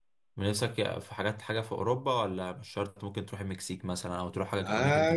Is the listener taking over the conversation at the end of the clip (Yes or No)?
Yes